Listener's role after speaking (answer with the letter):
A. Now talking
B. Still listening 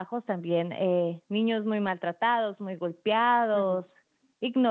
B